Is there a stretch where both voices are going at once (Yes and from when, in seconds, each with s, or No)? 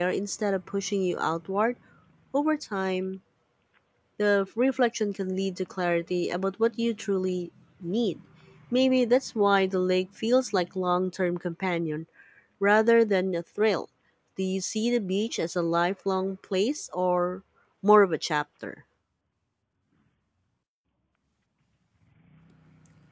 No